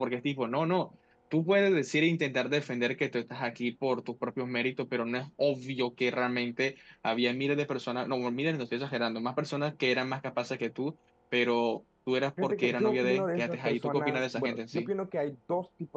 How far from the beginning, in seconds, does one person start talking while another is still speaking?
12 s

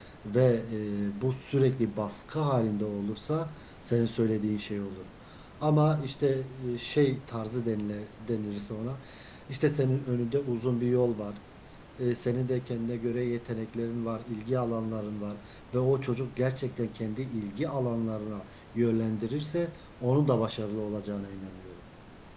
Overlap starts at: none

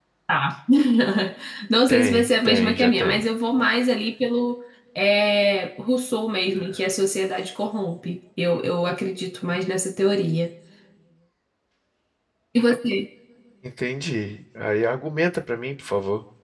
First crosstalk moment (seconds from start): 2 s

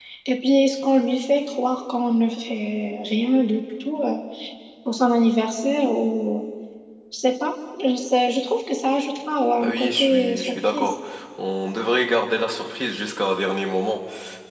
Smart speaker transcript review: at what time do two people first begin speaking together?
10 s

